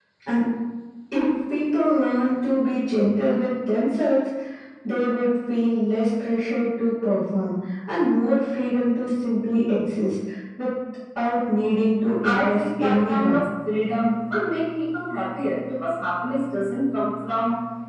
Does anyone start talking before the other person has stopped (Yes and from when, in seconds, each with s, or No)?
Yes, from 12.0 s